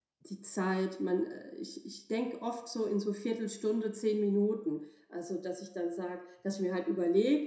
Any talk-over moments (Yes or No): No